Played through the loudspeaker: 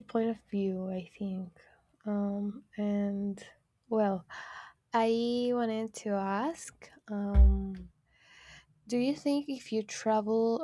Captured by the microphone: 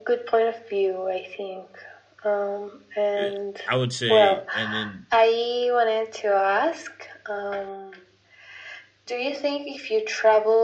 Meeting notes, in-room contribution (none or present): present